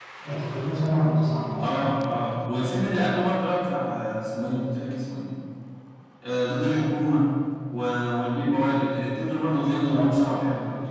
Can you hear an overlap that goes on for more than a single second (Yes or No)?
No